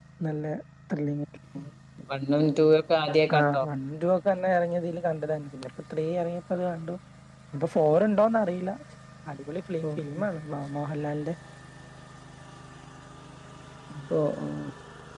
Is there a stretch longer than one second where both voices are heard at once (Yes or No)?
No